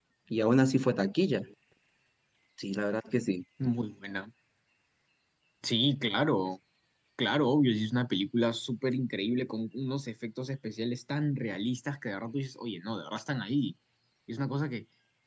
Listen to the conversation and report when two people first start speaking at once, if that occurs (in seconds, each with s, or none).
none